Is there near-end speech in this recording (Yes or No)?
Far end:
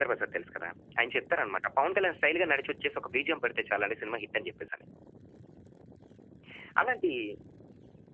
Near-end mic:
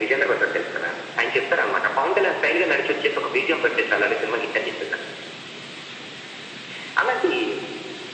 No